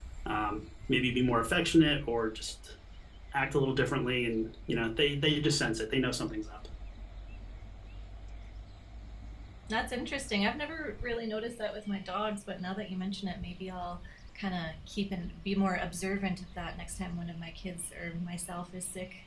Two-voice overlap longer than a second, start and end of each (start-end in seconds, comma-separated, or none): none